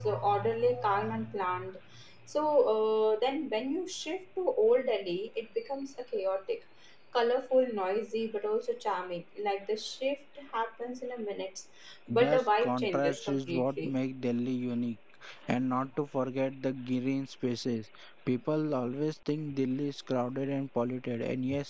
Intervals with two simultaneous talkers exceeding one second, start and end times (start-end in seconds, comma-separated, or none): 12.1-13.9